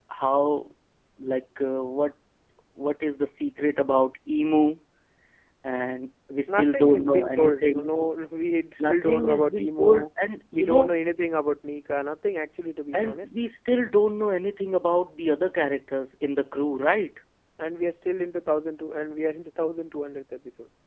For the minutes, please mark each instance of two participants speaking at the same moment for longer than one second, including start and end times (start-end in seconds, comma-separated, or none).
6.5-7.9, 8.8-10.1